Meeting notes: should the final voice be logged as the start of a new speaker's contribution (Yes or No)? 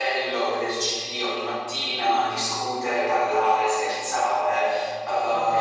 No